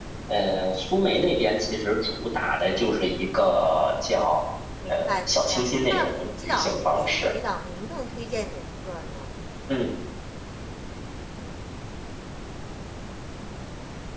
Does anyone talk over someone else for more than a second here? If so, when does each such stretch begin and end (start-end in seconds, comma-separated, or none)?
4.9-7.3